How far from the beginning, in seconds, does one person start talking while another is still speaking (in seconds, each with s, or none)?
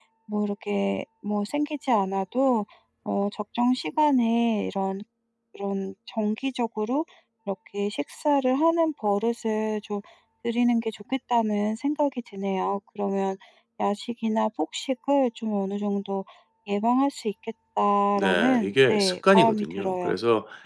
18.2 s